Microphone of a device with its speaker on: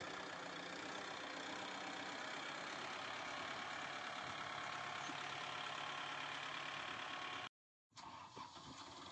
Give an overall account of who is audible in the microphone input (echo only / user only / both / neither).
neither